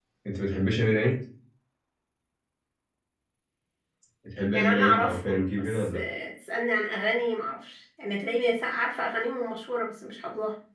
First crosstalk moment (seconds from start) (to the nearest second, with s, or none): 5 s